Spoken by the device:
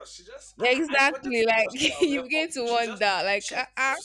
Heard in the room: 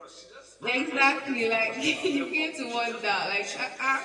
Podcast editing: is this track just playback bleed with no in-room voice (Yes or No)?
Yes